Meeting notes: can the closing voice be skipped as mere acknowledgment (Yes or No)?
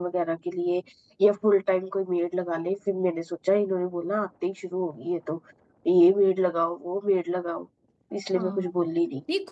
No